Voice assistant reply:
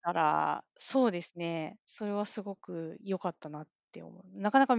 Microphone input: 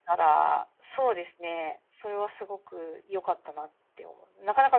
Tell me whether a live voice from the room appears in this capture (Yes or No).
No